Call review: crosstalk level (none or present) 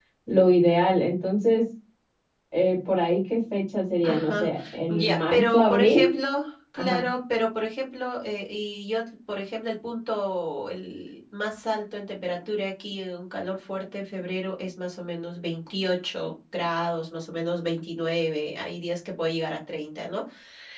present